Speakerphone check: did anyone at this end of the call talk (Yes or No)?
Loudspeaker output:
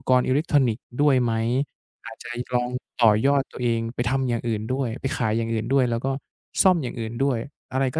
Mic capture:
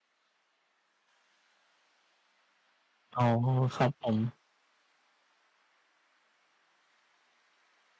Yes